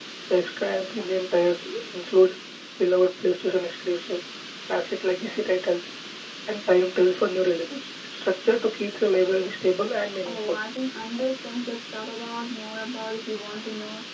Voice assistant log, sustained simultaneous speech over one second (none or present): none